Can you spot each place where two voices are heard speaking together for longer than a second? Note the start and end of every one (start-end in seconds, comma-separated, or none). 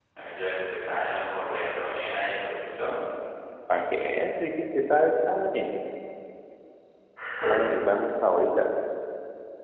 none